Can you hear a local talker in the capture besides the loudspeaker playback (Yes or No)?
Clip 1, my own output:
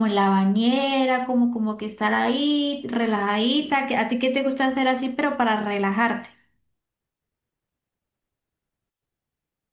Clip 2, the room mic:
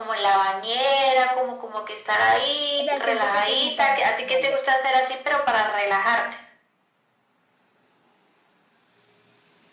Yes